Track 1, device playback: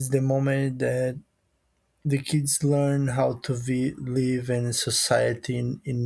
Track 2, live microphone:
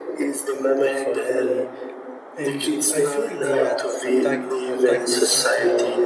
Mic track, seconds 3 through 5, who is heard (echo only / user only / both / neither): both